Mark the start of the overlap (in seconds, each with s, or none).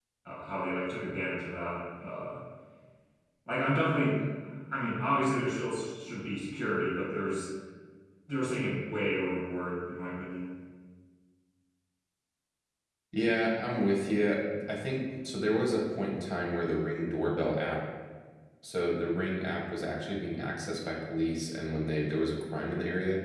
none